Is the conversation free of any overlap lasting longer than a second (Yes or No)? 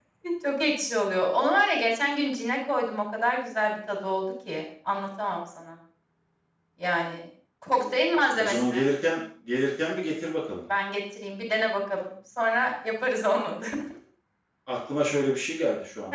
Yes